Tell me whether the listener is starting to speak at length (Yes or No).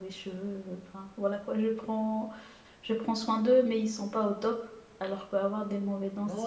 Yes